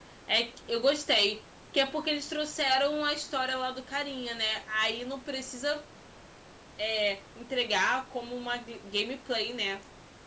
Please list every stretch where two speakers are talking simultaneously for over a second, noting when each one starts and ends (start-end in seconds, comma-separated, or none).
none